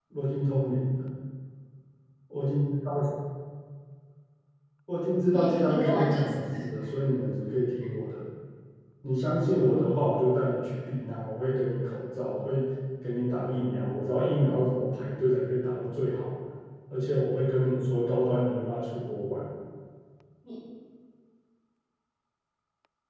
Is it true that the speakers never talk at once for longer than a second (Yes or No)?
No